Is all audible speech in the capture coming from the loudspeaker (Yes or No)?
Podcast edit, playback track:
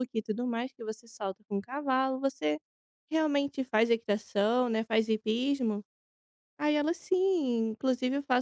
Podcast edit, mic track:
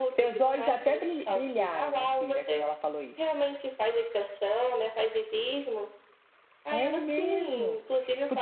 No